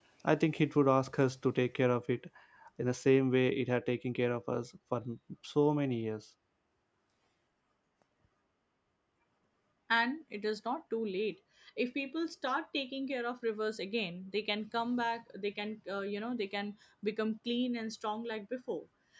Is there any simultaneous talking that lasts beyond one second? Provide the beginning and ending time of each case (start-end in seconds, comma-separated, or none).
none